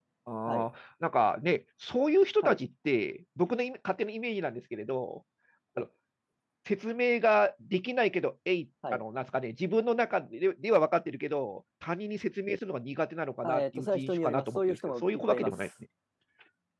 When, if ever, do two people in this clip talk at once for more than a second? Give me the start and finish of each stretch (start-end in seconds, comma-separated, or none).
13.4-15.7